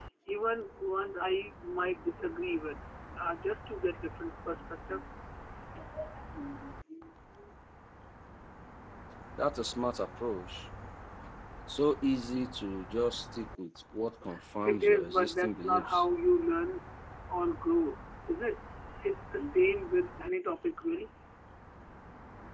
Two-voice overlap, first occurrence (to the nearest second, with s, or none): 15 s